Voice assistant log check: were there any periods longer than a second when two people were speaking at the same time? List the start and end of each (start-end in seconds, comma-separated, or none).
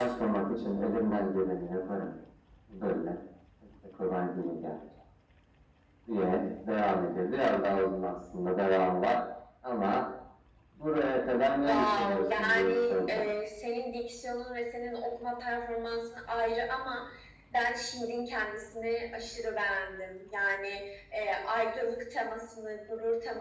11.5-13.2